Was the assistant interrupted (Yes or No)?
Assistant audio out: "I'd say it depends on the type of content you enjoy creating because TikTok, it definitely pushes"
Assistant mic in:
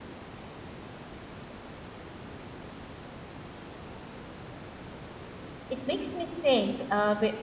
Yes